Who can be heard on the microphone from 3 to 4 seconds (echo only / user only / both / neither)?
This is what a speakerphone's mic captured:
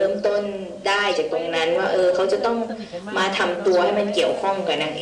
both